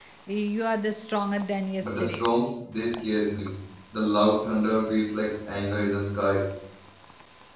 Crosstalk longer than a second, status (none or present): none